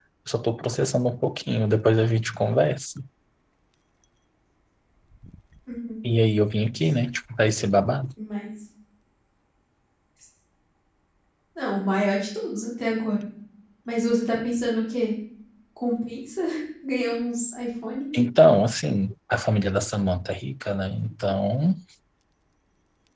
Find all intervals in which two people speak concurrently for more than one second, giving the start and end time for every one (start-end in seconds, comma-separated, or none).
none